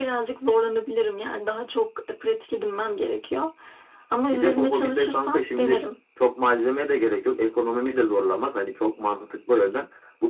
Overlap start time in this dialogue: 4.3 s

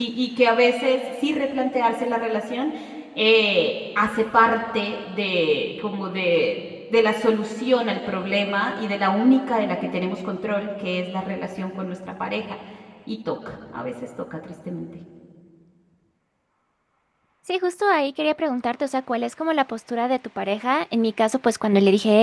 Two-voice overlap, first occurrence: none

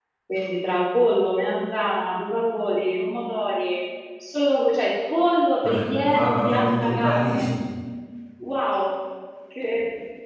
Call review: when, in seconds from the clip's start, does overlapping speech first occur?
5.6 s

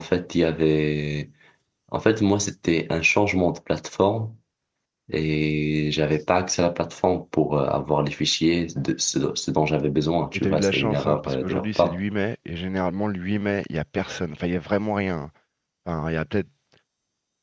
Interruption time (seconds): 10.3 s

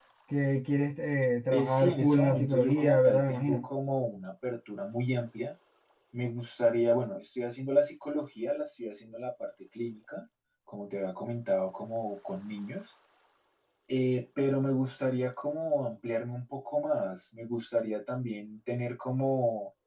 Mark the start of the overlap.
1.5 s

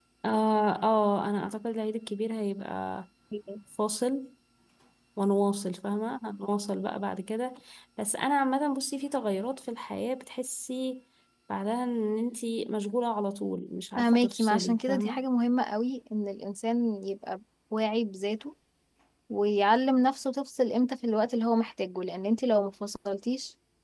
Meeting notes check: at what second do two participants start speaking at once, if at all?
14.0 s

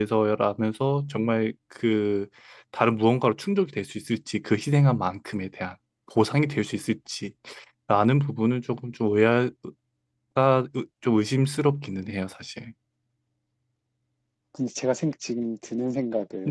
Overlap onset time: none

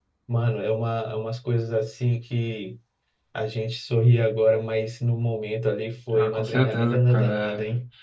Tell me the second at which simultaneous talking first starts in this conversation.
6.1 s

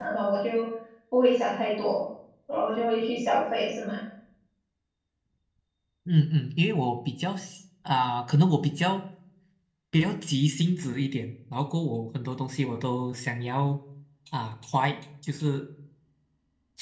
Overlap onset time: none

